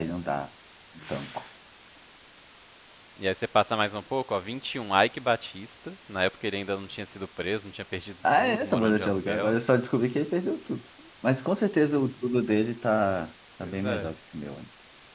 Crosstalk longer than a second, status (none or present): present